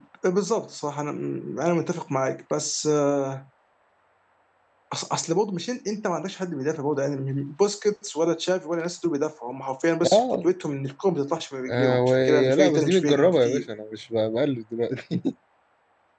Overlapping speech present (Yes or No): Yes